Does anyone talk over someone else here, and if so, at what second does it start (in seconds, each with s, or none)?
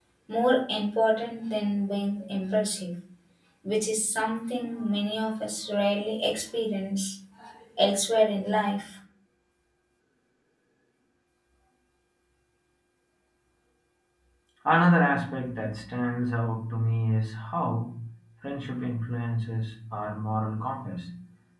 none